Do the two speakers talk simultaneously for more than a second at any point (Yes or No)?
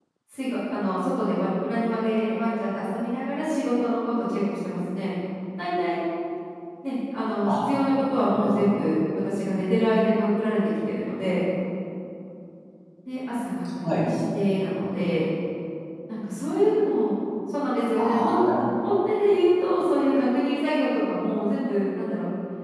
No